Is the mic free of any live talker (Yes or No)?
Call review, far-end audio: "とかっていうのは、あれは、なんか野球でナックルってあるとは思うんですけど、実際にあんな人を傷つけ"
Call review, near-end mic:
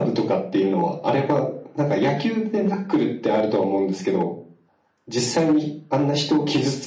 Yes